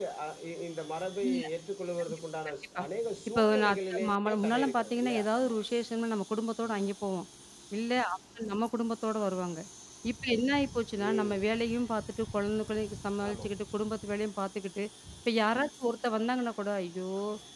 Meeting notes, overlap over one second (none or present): present